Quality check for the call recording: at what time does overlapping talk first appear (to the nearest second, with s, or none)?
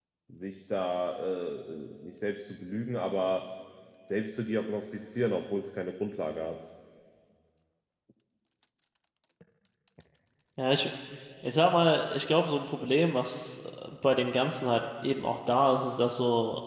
none